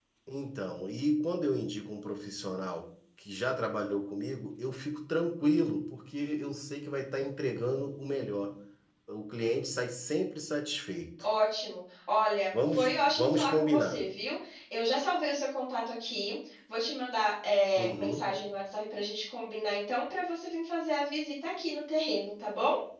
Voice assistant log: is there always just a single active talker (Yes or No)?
No